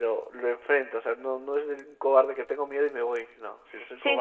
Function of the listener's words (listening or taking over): taking over